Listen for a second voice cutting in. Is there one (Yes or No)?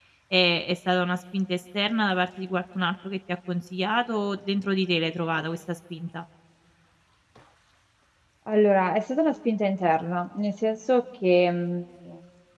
No